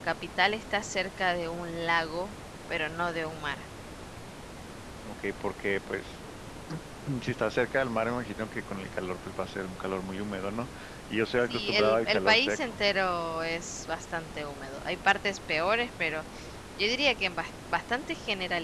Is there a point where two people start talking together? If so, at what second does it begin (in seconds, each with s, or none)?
11.5 s